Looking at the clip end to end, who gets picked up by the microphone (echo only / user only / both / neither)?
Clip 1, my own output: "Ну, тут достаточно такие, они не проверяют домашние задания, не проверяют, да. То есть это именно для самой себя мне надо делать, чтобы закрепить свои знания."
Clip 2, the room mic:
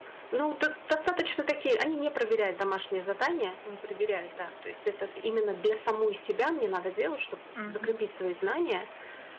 both